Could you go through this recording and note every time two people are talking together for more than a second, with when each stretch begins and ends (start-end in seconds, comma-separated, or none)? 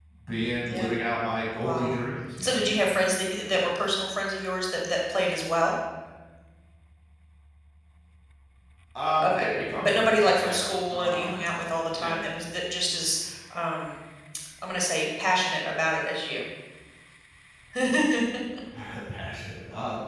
9.8-11.4